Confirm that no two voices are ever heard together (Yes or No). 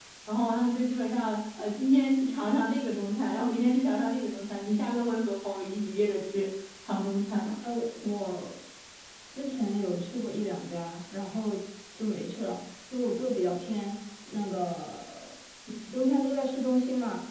Yes